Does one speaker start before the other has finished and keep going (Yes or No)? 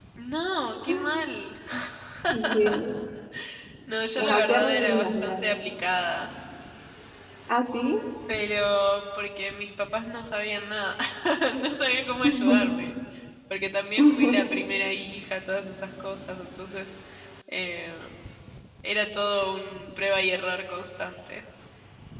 Yes